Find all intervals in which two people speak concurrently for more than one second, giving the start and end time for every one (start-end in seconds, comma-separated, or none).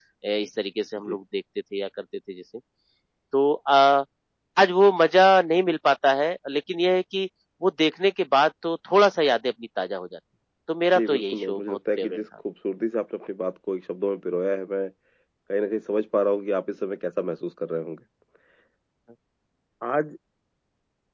11.0-12.2